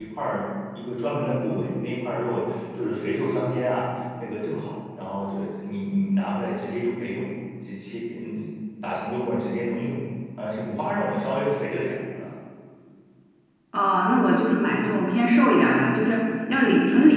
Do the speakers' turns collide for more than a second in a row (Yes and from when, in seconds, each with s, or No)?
No